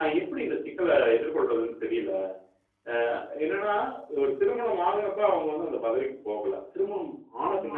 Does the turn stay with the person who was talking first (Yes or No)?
Yes